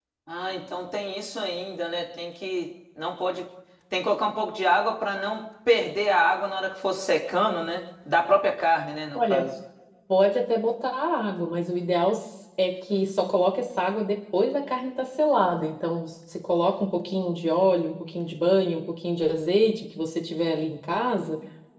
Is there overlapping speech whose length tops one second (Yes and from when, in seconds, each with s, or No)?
No